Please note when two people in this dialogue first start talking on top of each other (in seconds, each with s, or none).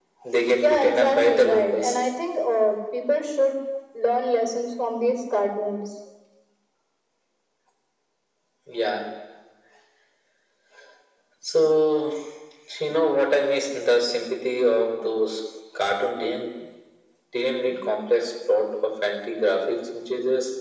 0.6 s